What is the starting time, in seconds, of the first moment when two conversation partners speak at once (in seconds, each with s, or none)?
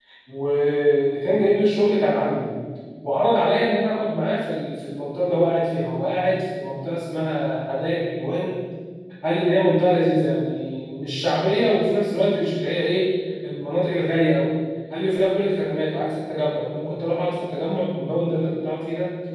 none